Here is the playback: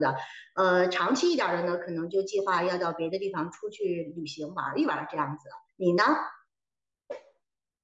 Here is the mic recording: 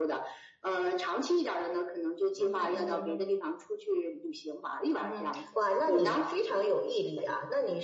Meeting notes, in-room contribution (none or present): present